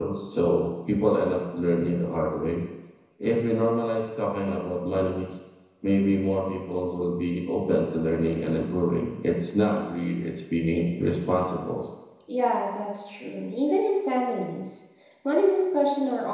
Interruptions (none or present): none